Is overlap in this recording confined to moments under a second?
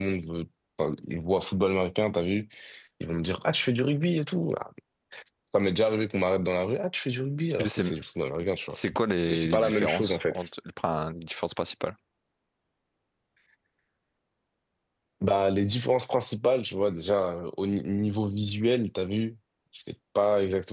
No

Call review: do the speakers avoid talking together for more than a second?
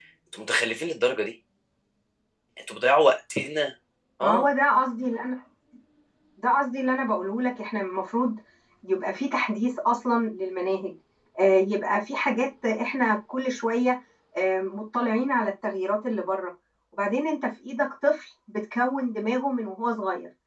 Yes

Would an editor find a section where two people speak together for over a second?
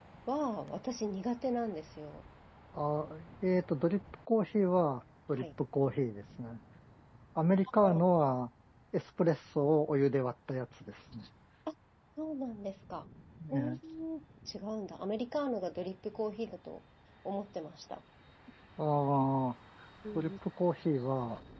No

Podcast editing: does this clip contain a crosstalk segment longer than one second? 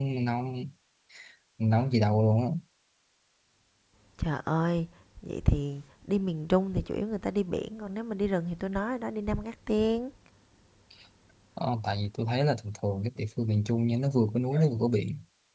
No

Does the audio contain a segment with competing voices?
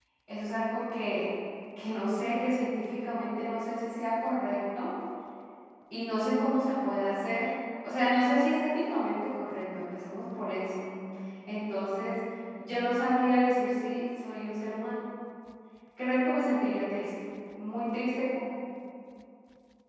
No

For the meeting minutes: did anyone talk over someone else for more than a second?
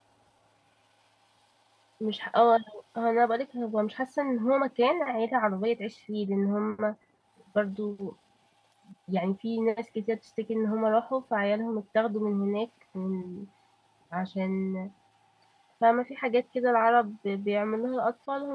No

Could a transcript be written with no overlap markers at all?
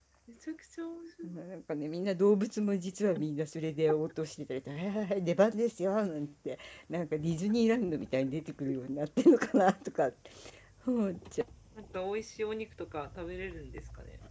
Yes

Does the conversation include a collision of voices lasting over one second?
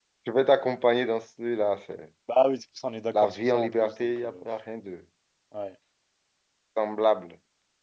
Yes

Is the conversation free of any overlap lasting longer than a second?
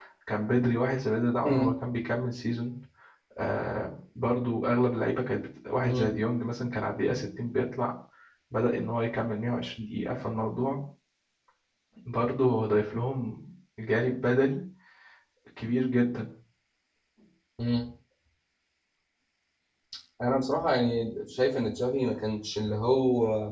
Yes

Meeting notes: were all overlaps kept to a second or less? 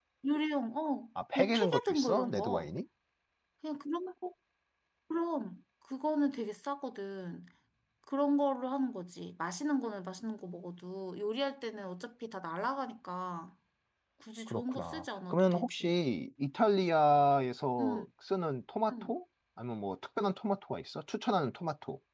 No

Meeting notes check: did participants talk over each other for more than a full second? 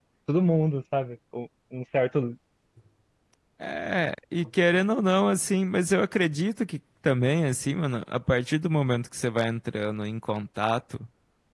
No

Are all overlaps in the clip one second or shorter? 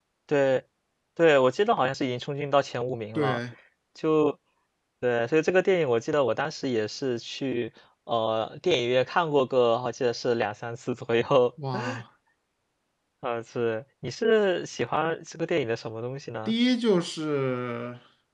Yes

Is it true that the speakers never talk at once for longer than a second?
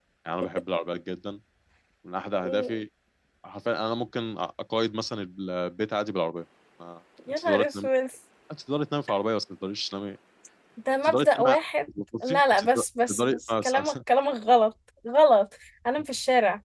No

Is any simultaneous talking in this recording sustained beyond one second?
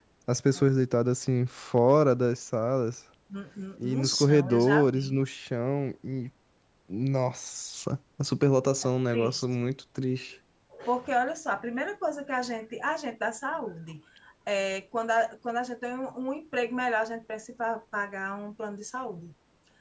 Yes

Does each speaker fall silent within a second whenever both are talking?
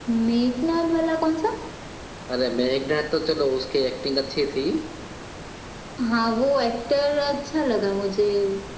Yes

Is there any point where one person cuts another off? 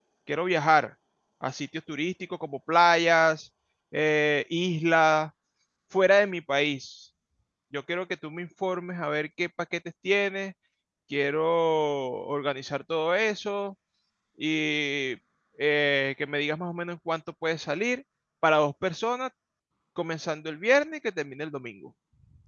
No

